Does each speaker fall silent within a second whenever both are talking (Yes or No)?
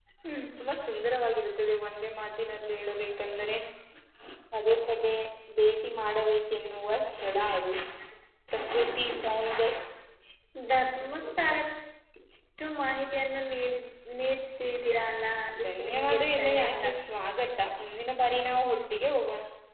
No